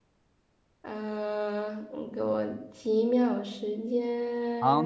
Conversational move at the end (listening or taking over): taking over